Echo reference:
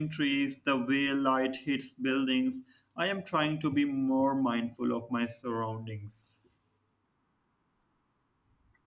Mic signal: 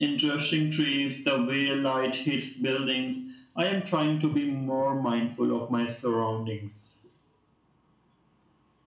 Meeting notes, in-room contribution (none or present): none